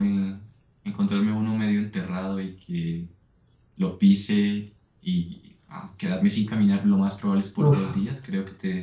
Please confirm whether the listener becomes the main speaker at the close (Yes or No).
No